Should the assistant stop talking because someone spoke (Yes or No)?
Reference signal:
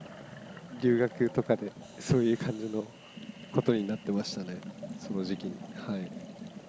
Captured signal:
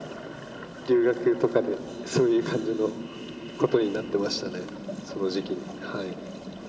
No